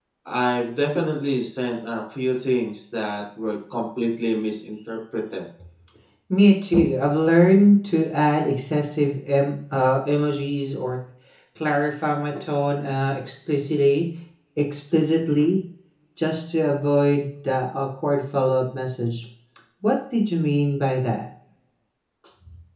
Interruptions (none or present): none